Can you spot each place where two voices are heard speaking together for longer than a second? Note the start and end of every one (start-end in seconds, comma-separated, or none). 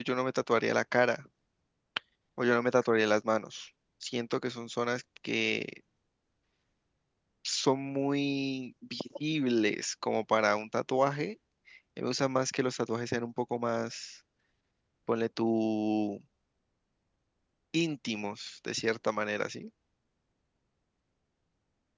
none